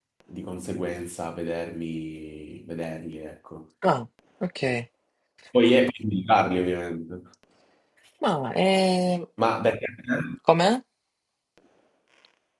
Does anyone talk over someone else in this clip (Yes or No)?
No